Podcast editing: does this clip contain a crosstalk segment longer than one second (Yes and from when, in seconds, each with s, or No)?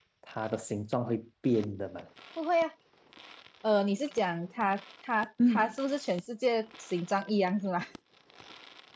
No